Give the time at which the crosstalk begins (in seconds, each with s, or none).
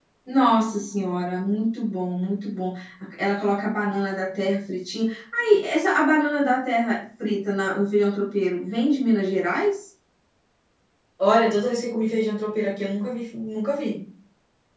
none